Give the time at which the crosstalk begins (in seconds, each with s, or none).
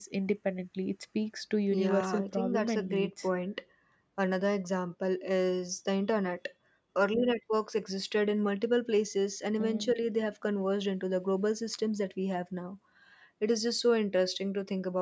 1.7 s